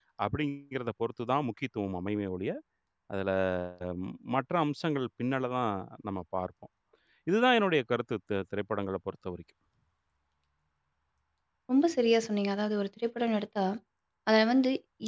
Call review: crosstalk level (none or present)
none